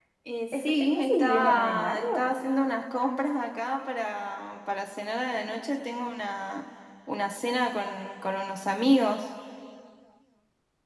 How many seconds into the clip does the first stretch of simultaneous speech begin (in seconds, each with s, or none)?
0.5 s